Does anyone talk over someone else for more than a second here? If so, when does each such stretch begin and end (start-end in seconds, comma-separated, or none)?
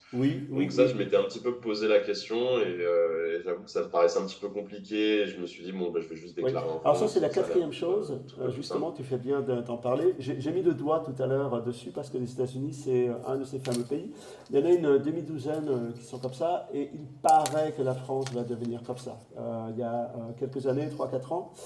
6.4-8.9